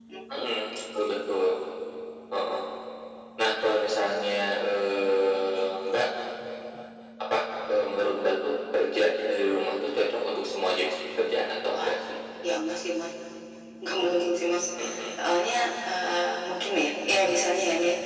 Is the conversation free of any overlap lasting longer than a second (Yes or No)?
Yes